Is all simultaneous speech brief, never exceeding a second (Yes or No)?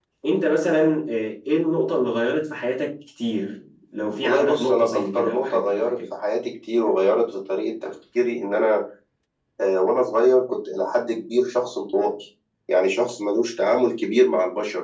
No